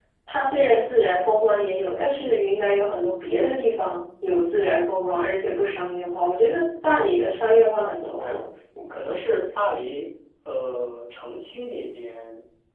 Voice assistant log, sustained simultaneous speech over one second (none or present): none